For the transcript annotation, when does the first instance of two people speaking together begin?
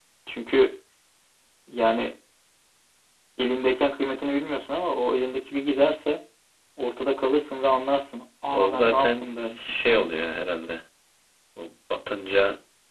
8.5 s

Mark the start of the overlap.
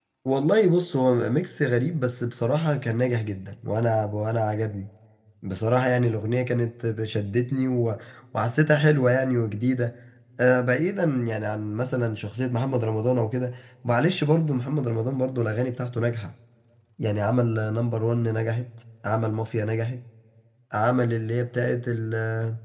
none

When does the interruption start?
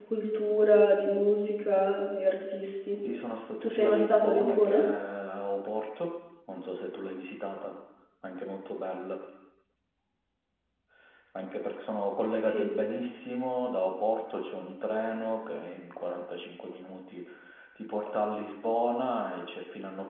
3.6 s

